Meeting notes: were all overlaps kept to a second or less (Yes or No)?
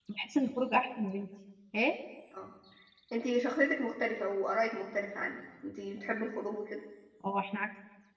Yes